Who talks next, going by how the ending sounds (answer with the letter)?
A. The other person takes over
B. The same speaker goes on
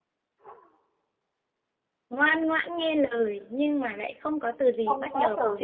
A